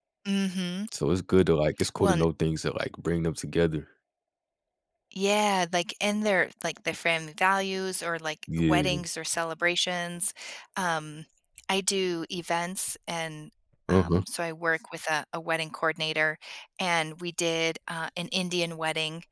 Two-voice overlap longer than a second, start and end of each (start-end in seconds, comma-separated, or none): none